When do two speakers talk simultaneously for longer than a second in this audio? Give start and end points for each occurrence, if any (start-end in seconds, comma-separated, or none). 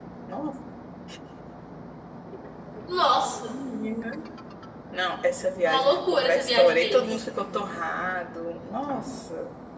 5.6-7.2